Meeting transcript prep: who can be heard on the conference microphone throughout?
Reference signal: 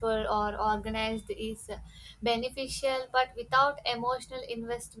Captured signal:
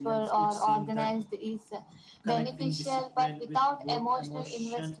both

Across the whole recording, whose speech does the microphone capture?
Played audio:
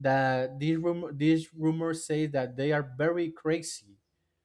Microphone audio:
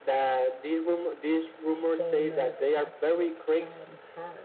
both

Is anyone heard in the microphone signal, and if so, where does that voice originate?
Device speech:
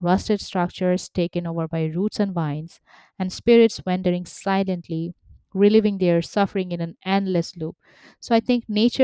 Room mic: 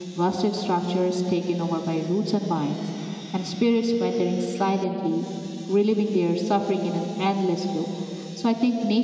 echo only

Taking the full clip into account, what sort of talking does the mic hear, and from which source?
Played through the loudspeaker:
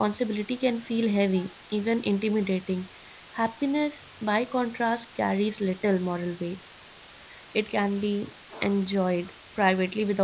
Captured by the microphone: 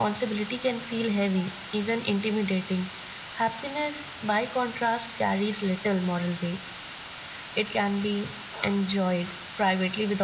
echo only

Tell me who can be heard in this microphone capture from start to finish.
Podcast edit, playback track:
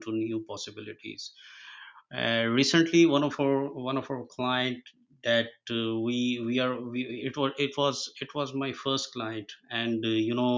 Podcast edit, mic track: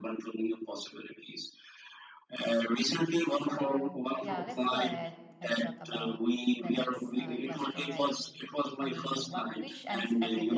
both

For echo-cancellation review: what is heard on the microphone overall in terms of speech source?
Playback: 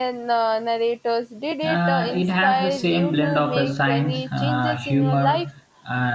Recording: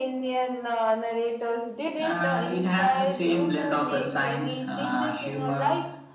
echo only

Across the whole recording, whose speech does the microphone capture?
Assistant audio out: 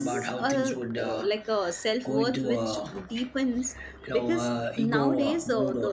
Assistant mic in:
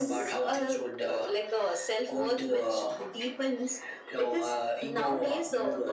echo only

